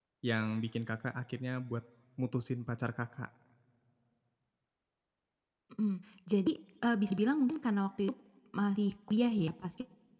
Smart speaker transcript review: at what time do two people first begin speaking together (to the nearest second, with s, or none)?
none